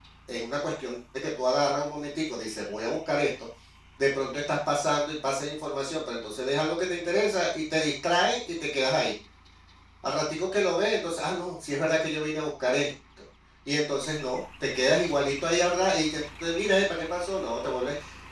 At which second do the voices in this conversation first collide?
none

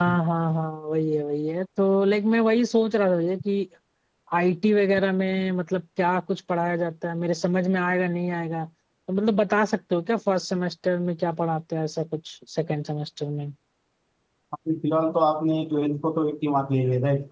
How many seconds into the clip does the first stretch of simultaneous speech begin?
none

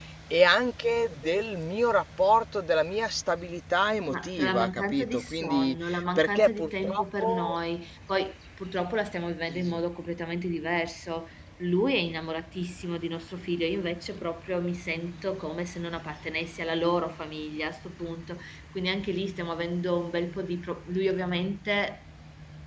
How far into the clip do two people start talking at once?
4.1 s

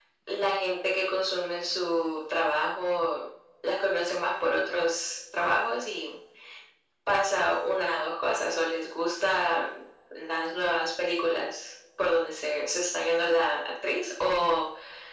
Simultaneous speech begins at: none

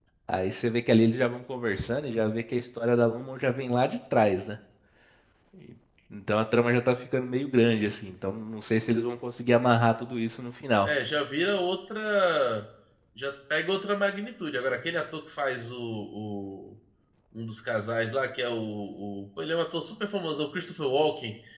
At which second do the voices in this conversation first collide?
none

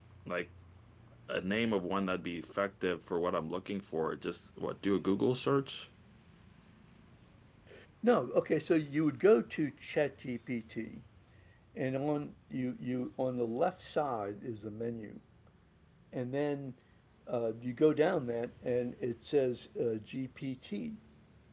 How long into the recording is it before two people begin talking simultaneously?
none

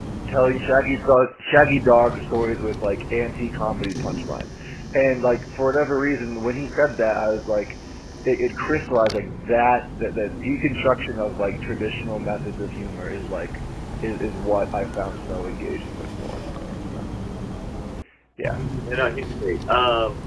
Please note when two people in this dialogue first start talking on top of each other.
none

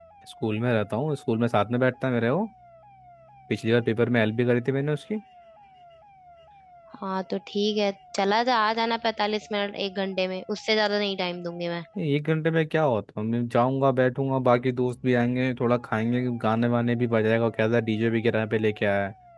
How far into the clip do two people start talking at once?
none

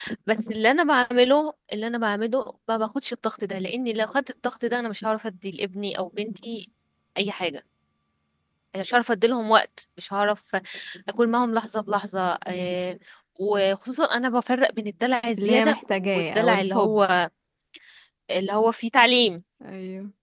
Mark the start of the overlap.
15.4 s

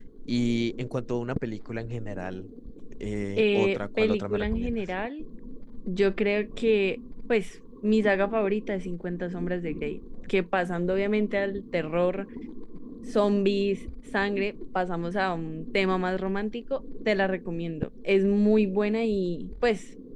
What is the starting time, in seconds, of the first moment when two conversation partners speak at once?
3.4 s

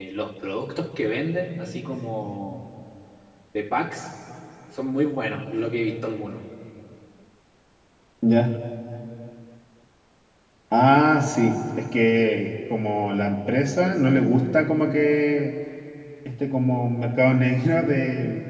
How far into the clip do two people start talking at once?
none

